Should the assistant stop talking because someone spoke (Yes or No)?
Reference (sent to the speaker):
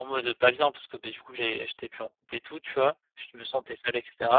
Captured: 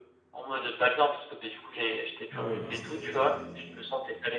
Yes